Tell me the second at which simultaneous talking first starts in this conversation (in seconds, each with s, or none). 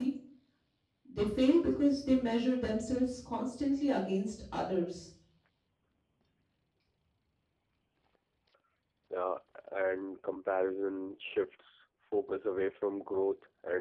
none